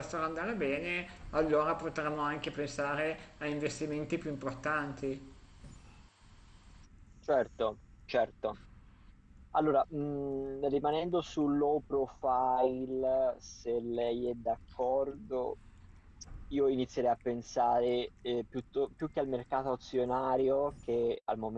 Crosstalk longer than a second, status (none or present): none